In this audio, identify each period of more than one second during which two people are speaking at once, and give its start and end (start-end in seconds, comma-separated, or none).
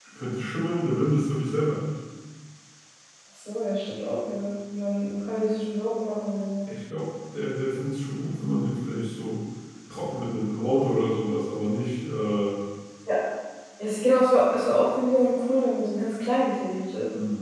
none